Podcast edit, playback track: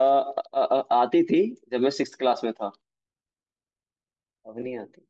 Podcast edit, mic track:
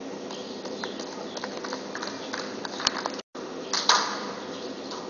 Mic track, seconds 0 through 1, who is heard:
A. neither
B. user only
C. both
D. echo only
A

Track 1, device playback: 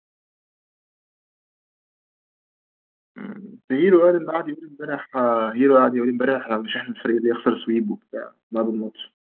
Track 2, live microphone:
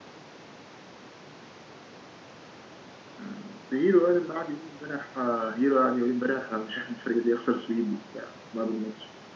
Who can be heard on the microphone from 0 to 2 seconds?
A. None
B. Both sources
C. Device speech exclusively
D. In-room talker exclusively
A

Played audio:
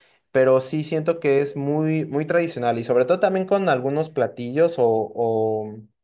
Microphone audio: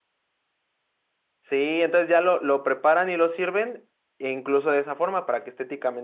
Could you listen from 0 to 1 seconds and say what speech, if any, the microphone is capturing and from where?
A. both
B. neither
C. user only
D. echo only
B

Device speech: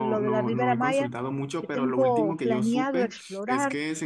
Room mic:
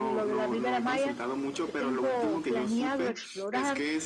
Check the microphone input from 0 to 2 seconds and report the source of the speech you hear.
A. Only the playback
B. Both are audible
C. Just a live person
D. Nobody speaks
A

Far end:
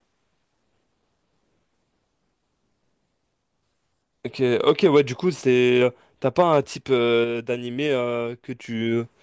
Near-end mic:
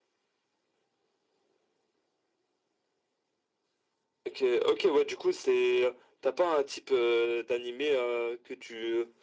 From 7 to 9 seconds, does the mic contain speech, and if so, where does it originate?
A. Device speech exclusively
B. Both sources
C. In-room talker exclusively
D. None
A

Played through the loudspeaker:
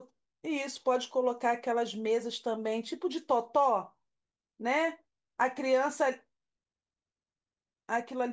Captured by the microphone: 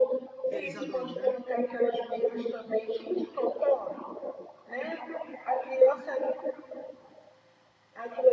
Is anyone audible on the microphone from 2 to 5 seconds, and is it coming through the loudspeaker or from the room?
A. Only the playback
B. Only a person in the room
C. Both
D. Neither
A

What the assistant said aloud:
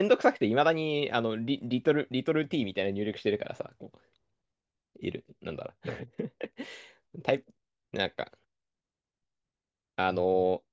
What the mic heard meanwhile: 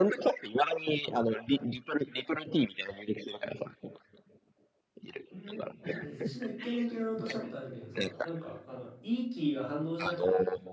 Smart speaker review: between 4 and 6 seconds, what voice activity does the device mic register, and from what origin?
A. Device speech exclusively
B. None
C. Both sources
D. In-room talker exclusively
C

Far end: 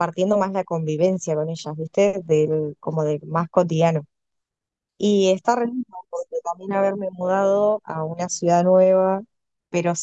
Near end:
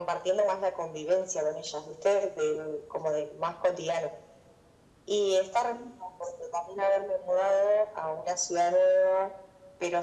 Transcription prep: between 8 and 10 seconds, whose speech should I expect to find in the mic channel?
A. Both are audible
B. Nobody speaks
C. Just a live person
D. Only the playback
D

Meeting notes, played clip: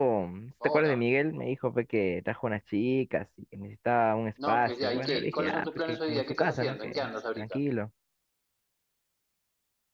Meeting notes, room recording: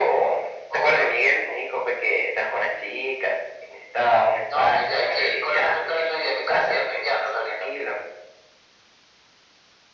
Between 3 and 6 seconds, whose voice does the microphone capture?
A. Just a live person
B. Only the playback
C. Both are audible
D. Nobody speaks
B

